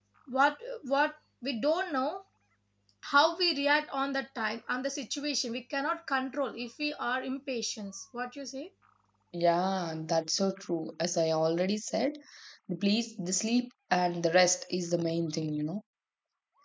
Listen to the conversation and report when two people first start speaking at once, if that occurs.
none

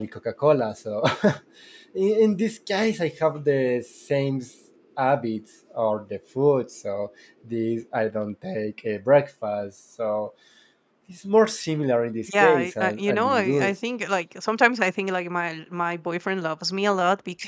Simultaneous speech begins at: 12.3 s

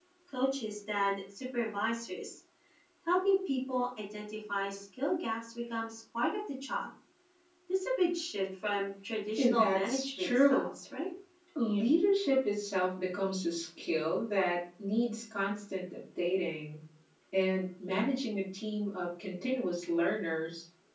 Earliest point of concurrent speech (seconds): 9.4 s

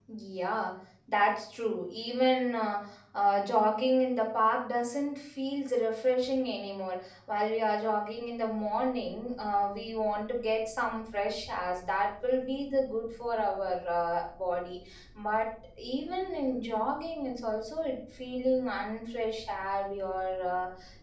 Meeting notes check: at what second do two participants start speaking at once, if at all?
none

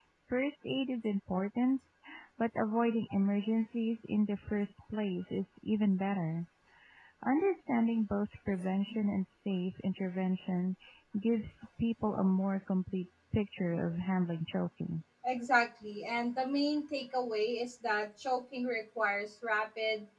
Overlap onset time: none

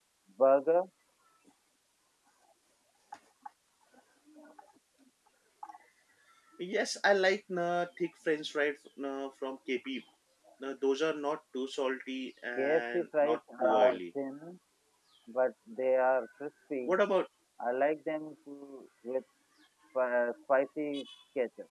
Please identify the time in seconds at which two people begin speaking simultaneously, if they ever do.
12.6 s

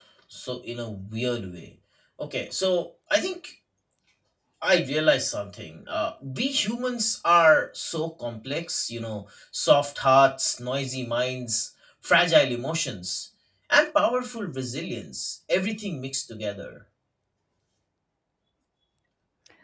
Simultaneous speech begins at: none

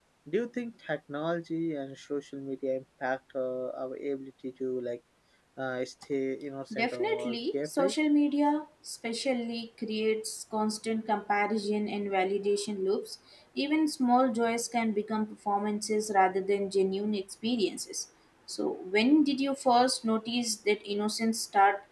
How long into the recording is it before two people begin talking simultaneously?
6.7 s

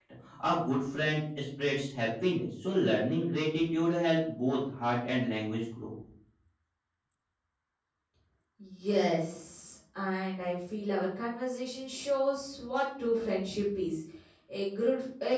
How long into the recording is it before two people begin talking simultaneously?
none

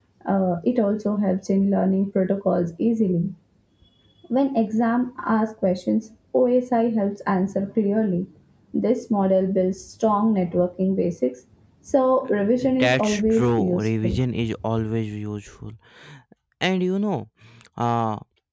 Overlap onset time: 12.6 s

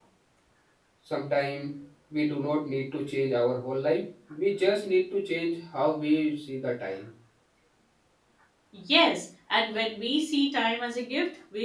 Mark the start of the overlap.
none

